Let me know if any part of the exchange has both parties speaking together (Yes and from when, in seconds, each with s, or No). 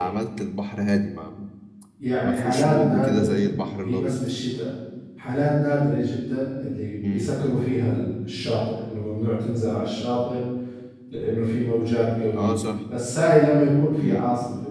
Yes, from 2.2 s